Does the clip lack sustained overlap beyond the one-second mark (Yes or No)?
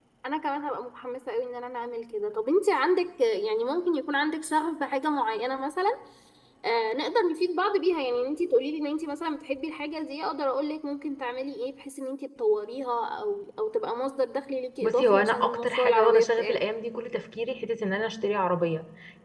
No